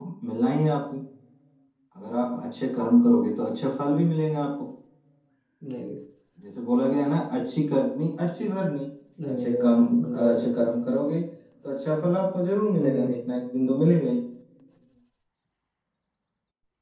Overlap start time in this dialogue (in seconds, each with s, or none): 9.3 s